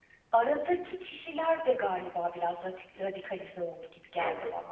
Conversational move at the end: taking over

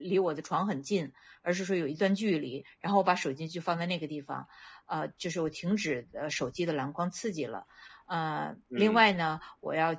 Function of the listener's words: listening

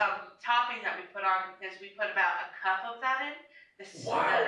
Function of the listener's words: taking over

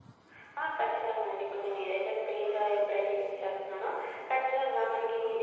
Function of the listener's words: listening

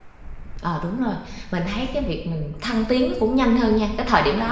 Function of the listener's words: listening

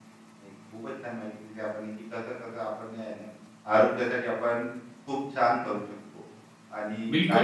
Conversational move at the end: taking over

